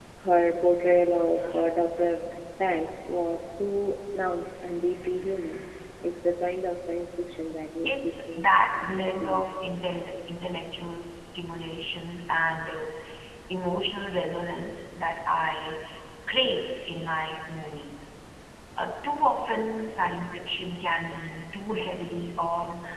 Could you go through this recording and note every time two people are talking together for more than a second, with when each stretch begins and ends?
7.9-9.4

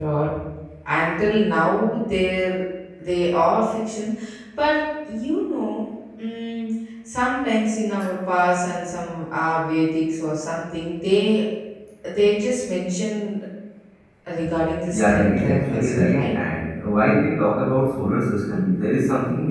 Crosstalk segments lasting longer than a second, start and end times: 14.9-16.3

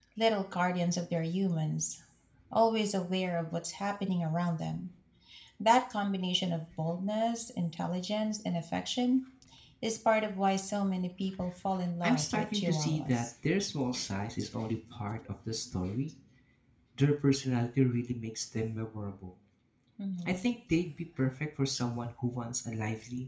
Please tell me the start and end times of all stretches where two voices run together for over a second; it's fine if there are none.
12.0-13.2

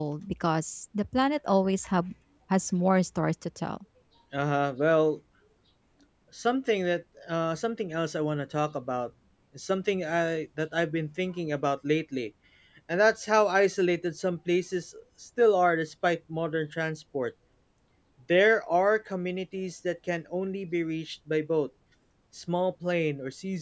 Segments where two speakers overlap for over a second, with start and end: none

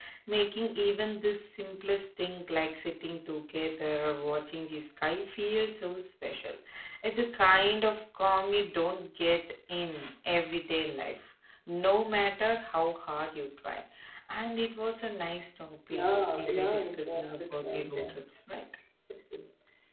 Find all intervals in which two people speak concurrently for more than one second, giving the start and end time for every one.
15.9-18.1

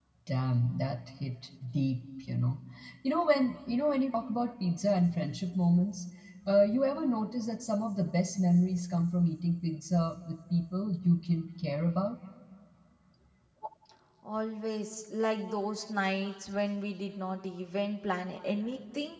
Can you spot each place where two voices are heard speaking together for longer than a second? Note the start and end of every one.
none

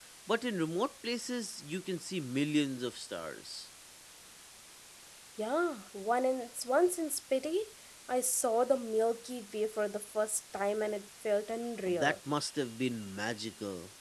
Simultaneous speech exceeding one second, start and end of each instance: none

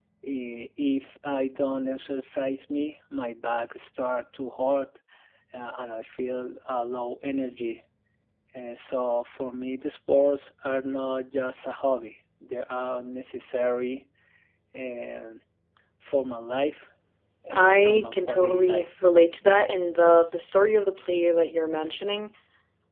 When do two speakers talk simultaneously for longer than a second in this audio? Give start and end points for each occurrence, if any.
17.5-19.0

